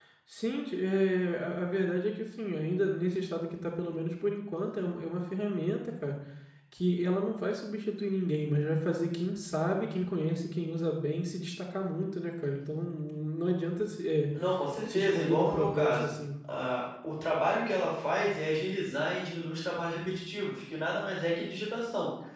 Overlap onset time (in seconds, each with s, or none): 14.9 s